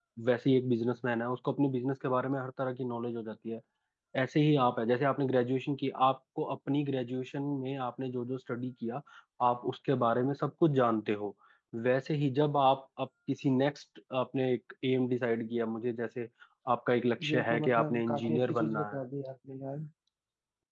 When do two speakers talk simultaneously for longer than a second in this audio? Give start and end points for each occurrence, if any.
17.2-19.0

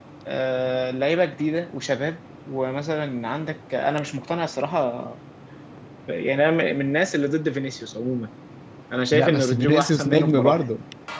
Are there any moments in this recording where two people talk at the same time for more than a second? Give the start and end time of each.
9.1-10.6

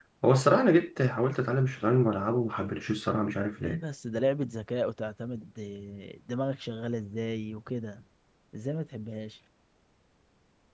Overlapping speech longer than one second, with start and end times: none

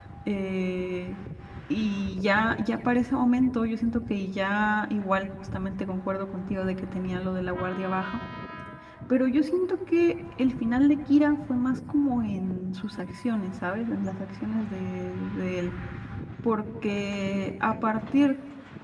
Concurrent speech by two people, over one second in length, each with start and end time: none

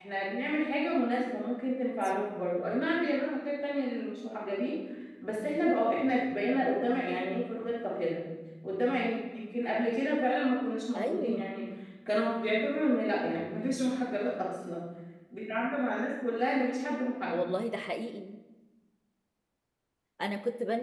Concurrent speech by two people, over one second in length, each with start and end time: none

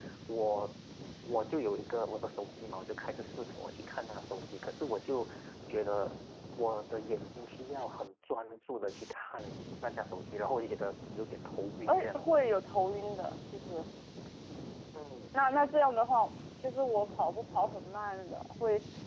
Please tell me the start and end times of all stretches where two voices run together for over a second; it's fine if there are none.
none

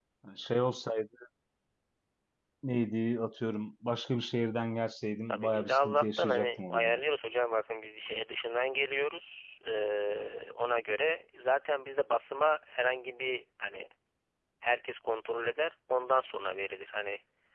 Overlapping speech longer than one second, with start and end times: 5.3-6.9

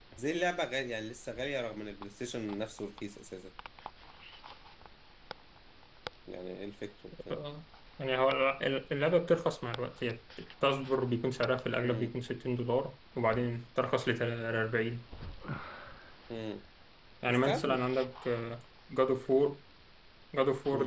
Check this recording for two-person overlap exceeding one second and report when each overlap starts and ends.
none

